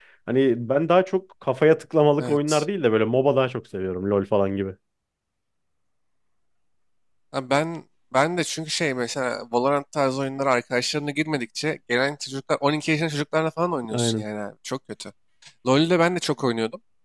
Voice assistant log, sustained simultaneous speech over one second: none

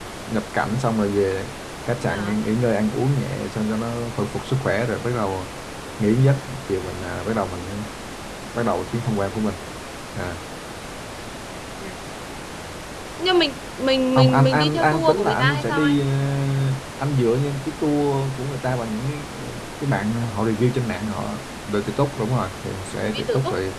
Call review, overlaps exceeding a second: present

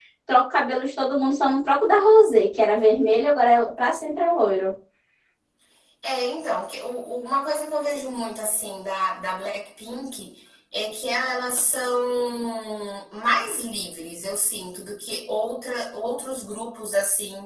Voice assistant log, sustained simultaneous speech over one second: none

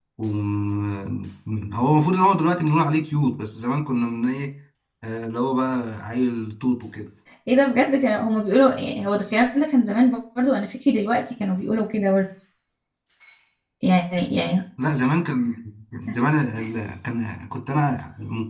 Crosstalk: none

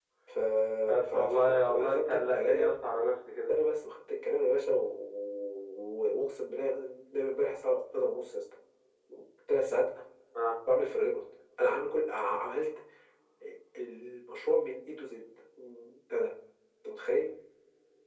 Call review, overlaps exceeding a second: present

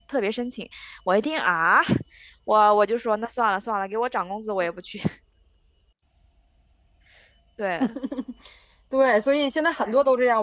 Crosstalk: none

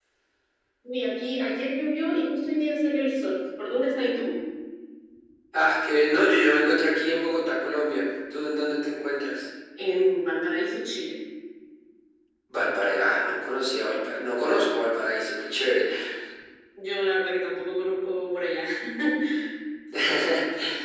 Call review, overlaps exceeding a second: none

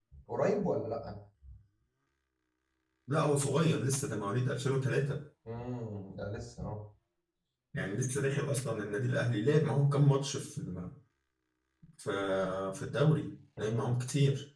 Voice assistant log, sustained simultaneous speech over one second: none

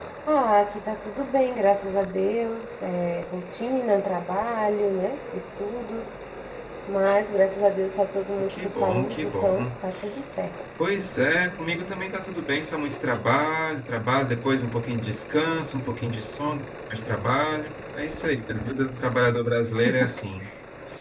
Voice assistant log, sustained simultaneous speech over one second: present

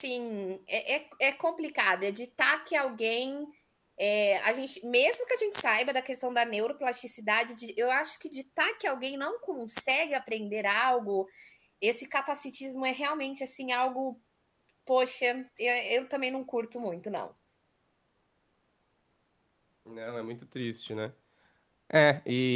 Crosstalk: none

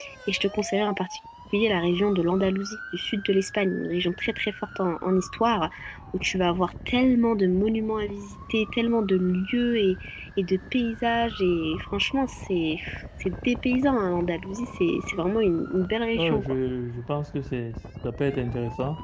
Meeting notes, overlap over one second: none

